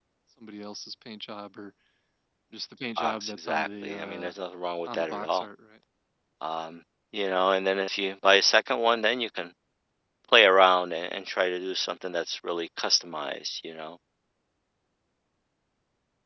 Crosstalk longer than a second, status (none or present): present